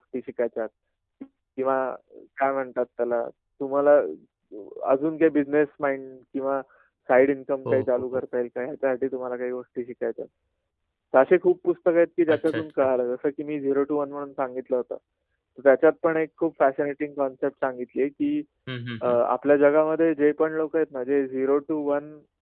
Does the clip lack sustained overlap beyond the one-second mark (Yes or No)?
Yes